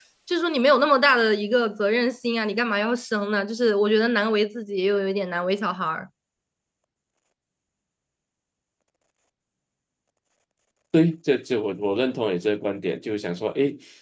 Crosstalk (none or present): none